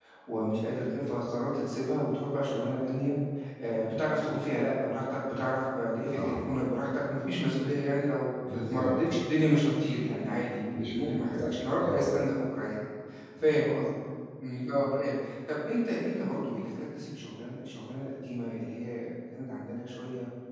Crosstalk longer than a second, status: present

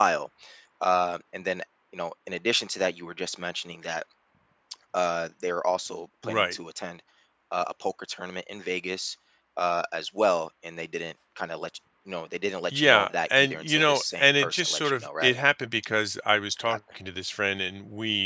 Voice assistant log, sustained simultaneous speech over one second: present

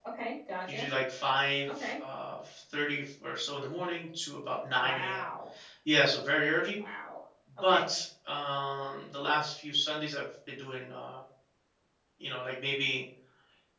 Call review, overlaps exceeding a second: none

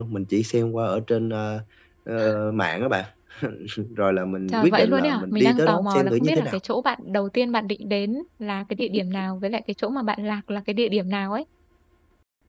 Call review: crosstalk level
present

